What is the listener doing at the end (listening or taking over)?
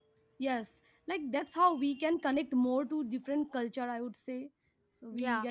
taking over